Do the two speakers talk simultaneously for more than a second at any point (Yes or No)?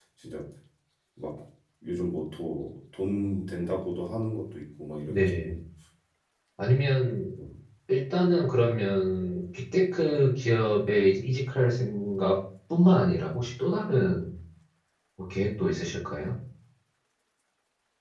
No